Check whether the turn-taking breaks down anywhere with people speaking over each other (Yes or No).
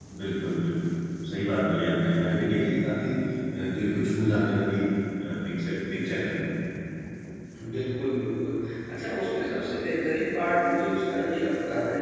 No